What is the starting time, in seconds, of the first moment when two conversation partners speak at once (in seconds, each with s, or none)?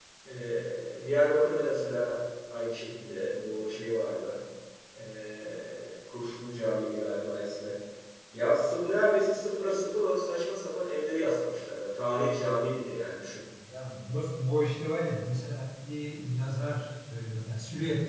none